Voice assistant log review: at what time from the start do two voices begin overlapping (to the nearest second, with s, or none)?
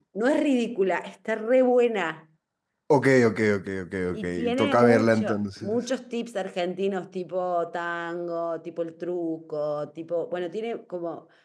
4 s